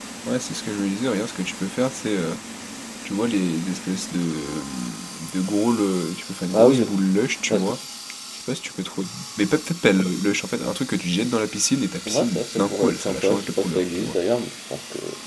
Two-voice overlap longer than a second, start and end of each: 12.1-14.1

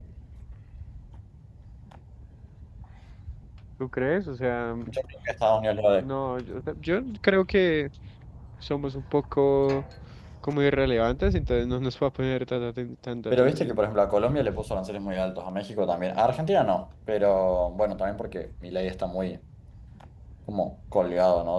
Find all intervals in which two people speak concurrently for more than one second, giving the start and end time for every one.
none

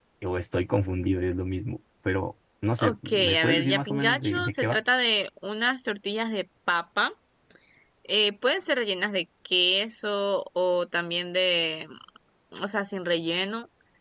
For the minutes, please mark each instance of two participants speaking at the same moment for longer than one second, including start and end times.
2.8-4.8

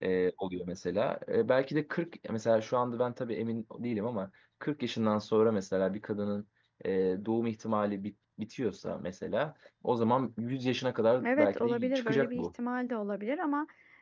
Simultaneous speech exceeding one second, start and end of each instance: 11.2-12.4

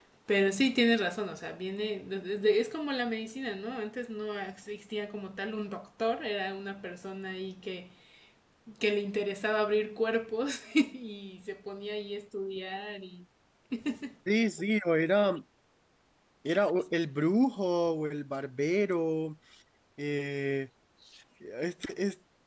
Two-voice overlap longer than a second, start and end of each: none

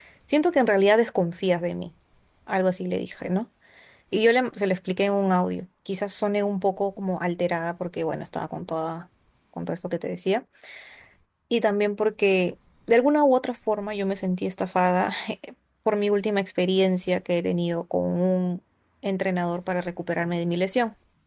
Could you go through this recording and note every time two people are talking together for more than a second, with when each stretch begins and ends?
none

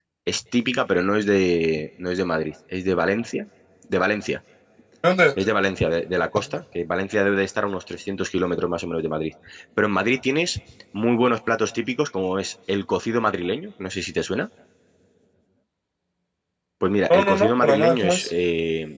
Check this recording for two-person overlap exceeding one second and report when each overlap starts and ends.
17.1-18.3

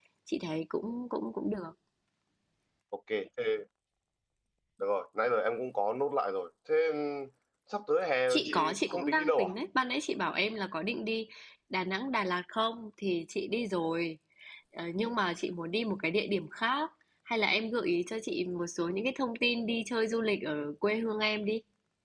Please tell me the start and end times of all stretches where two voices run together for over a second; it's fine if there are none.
8.3-9.5

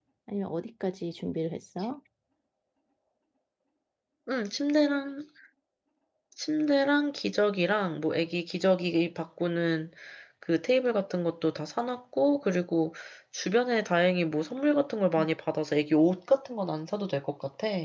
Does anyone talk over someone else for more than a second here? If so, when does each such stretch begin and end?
none

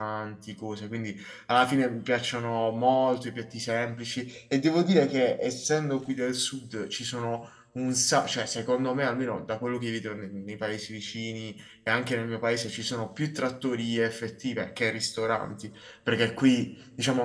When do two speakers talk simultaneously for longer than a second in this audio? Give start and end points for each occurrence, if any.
none

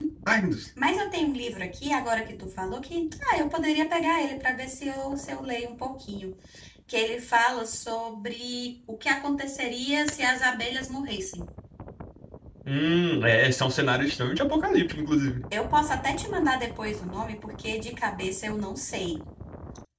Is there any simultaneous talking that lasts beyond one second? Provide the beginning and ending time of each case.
none

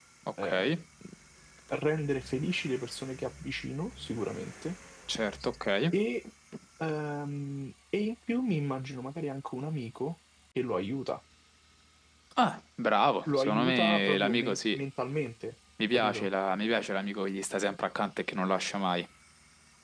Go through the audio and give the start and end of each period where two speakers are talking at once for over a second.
13.3-14.8

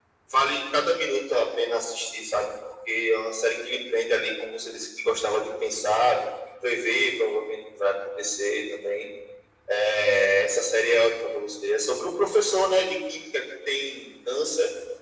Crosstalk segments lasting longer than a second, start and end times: none

